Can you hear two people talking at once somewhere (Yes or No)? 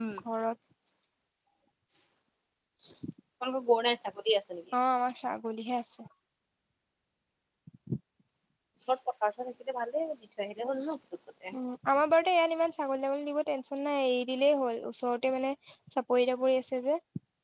No